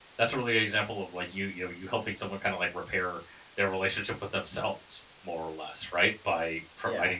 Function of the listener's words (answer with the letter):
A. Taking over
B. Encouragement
B